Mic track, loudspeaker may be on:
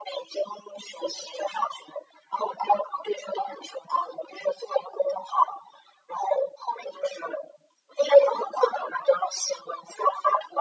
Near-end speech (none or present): none